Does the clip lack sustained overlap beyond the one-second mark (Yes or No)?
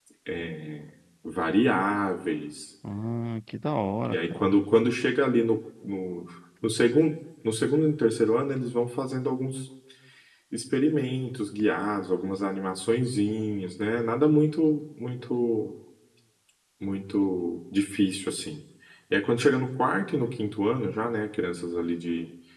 Yes